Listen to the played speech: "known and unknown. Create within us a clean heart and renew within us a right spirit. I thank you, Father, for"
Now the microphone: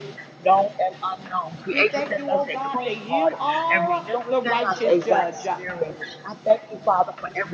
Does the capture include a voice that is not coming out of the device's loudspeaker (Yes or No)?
Yes